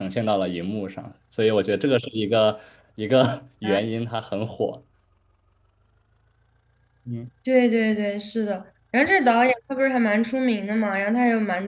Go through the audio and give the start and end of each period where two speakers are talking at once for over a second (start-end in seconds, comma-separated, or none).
none